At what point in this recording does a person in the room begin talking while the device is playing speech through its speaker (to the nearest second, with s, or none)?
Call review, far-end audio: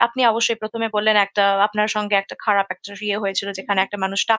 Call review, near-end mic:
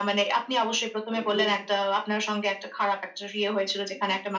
1 s